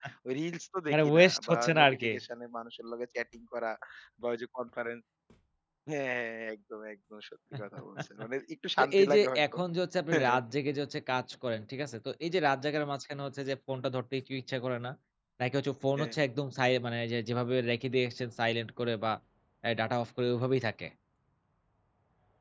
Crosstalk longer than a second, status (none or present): present